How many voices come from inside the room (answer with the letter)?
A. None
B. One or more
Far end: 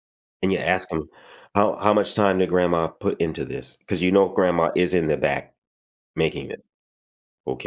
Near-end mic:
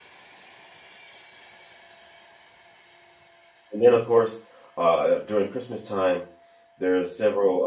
B